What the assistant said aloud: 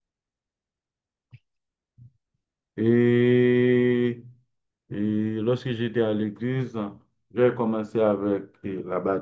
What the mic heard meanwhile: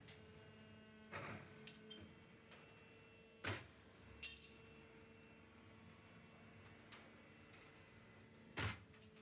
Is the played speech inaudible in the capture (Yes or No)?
Yes